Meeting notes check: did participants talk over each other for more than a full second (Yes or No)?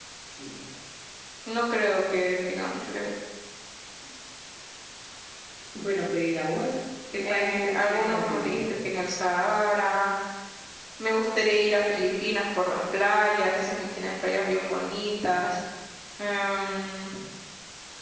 Yes